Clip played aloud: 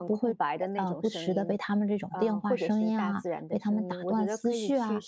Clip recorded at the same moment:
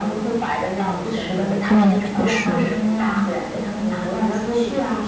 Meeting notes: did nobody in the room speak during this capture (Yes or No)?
No